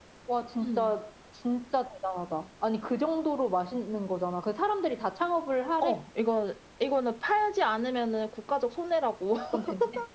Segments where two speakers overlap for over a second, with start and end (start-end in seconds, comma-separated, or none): none